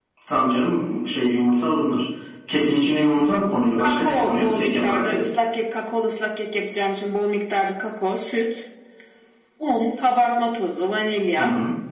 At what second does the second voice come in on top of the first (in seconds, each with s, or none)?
3.8 s